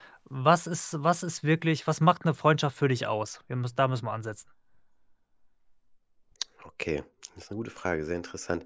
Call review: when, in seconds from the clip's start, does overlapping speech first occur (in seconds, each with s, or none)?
none